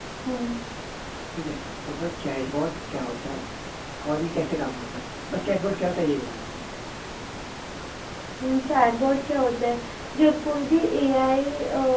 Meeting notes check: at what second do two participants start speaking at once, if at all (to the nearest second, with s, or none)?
none